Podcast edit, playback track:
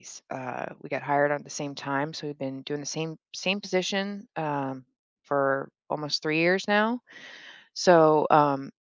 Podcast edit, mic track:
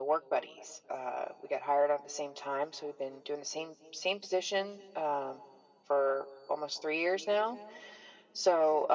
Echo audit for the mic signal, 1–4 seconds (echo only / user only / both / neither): echo only